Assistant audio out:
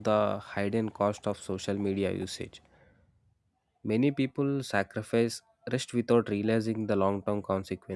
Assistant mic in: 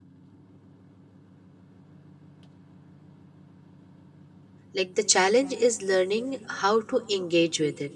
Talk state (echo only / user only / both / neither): user only